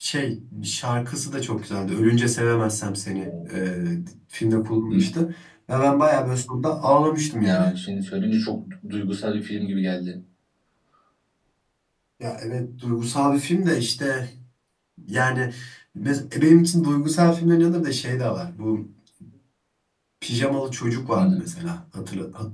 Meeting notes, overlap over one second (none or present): none